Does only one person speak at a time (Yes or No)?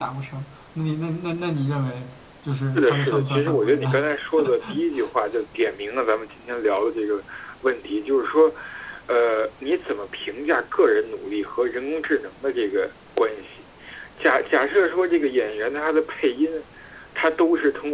No